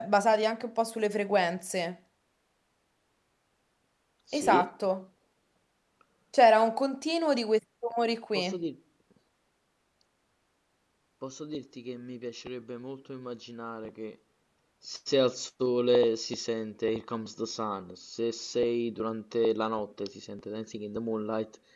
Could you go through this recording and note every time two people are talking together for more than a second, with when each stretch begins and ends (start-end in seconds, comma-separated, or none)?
none